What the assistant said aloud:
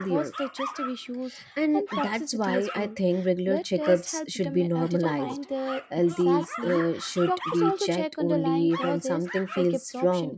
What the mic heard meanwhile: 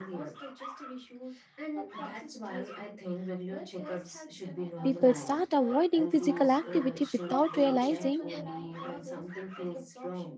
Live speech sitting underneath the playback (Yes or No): No